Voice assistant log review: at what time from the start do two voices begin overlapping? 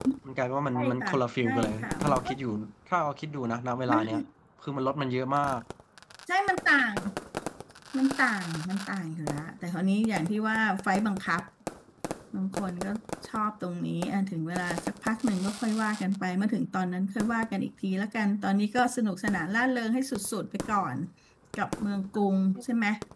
1 s

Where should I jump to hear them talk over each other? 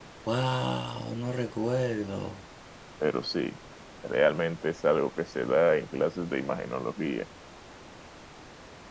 none

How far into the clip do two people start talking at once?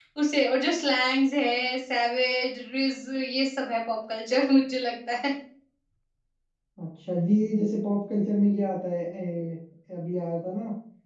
none

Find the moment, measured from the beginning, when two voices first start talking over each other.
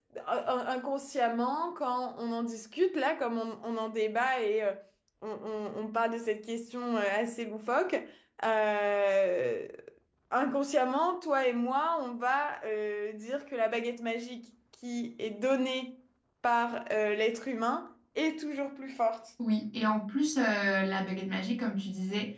none

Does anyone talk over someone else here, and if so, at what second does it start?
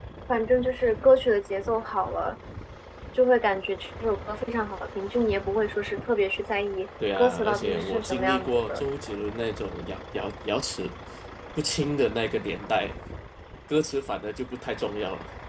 7 s

